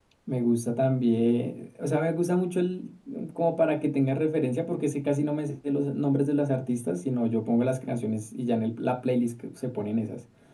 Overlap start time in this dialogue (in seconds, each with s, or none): none